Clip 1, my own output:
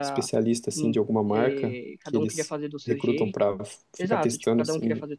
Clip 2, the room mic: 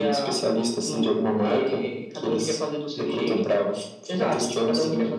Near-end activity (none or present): none